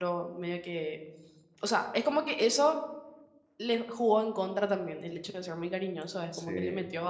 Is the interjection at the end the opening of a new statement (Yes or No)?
No